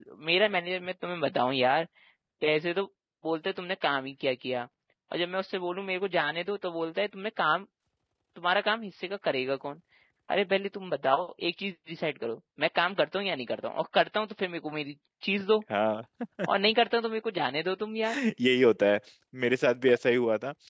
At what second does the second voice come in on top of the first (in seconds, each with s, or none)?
none